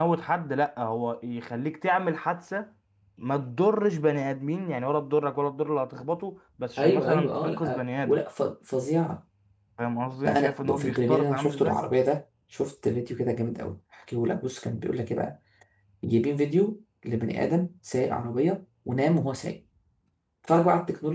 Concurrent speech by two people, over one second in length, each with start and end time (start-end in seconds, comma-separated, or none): 6.8-8.2, 10.2-11.8